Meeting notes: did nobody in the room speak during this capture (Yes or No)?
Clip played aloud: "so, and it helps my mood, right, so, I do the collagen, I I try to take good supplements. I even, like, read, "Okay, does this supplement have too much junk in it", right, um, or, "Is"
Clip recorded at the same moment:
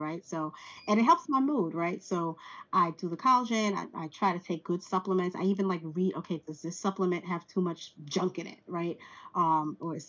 Yes